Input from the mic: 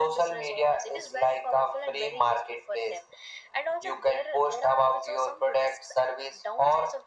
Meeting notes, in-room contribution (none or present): none